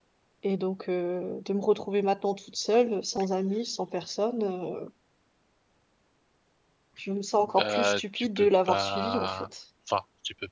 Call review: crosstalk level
present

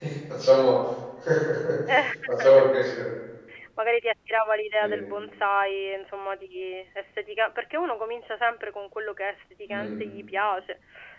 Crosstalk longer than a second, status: none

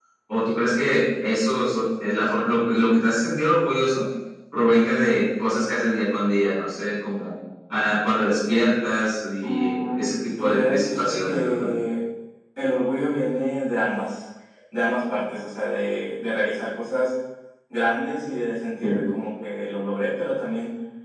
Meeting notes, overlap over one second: present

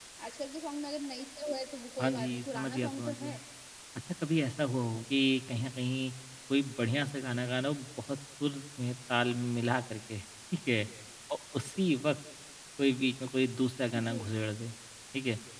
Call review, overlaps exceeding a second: present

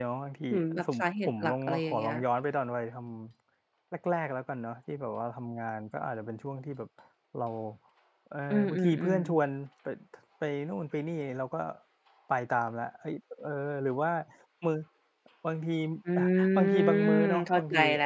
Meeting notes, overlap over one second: present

